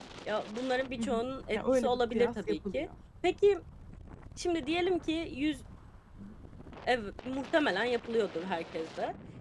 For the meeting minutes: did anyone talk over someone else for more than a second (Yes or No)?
Yes